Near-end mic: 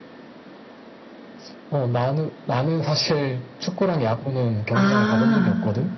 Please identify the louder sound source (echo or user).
user